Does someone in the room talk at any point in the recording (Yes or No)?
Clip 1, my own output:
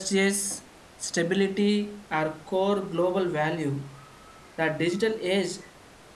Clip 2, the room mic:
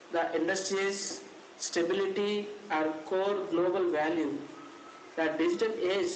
No